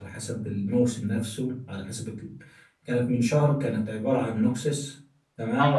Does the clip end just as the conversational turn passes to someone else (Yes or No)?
Yes